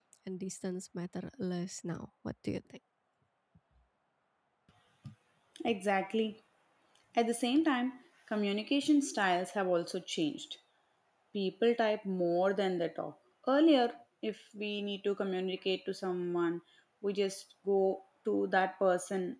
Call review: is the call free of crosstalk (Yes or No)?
Yes